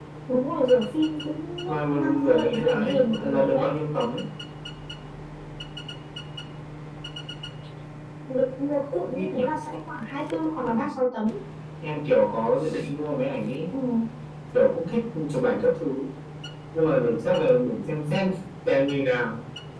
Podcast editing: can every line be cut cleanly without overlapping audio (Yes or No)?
No